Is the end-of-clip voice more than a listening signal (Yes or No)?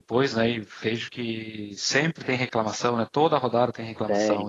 Yes